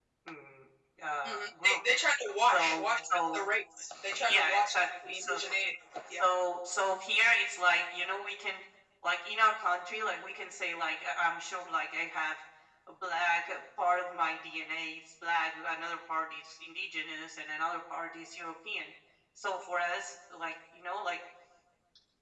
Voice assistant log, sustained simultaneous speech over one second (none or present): present